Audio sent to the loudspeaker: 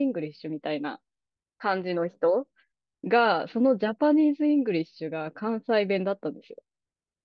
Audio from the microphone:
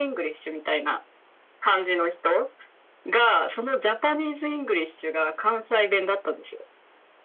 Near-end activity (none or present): none